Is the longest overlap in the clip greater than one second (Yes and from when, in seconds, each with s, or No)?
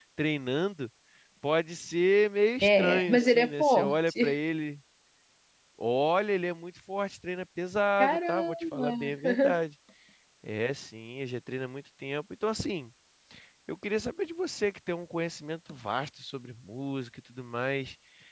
Yes, from 2.6 s